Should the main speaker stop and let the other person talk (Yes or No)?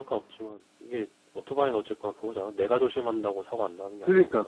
Yes